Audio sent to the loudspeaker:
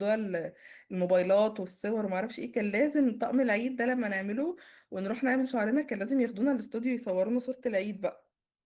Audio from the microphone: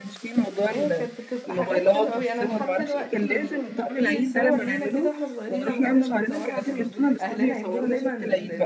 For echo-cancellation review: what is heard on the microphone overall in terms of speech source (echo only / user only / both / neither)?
both